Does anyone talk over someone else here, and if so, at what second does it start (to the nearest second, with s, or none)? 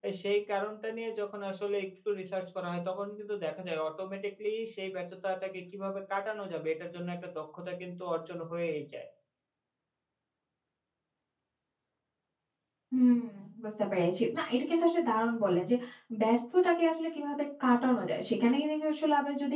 none